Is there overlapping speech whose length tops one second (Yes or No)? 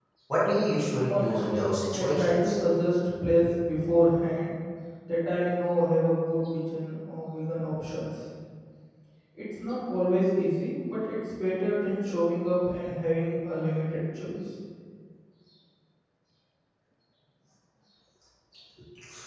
Yes